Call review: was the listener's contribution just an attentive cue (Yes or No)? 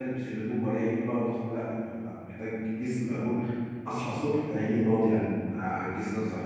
No